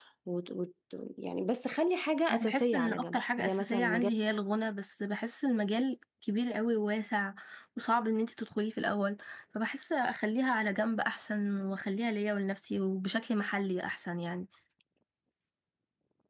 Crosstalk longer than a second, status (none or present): present